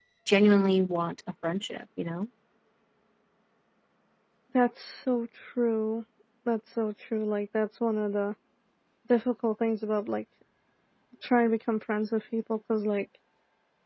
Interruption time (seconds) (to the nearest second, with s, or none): none